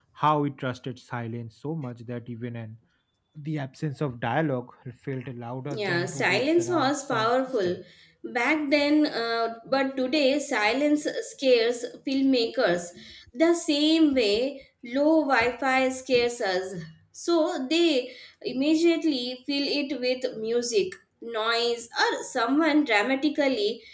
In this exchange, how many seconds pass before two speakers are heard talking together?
6 s

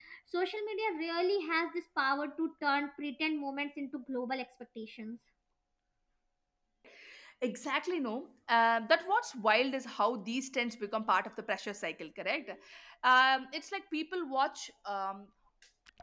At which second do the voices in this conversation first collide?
none

